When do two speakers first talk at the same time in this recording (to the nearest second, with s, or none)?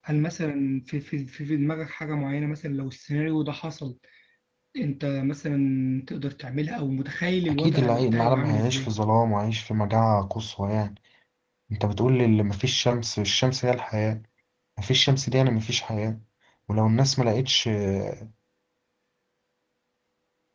7 s